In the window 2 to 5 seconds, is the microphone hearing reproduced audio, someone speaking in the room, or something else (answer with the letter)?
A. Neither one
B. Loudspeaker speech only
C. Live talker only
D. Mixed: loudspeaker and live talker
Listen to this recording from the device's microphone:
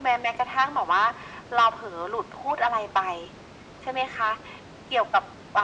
B